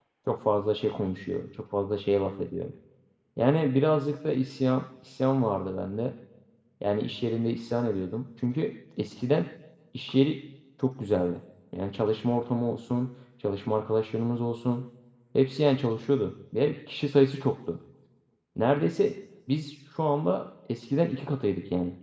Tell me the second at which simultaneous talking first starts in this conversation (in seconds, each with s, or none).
none